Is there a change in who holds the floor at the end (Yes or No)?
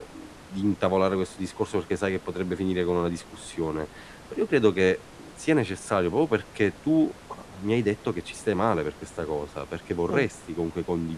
No